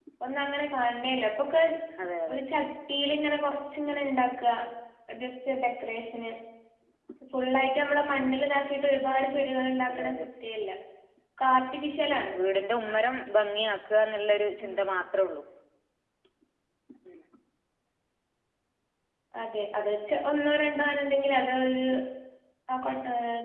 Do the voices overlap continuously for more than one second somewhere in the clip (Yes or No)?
No